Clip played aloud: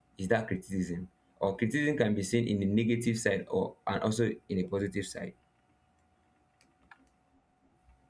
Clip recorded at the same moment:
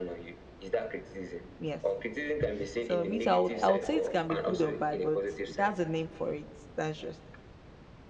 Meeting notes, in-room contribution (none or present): present